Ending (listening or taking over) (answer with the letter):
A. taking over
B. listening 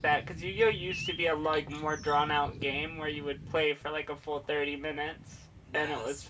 A